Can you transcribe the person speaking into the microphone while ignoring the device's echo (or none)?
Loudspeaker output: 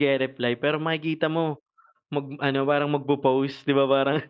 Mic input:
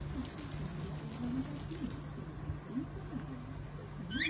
none